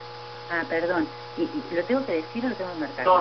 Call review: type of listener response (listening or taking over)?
taking over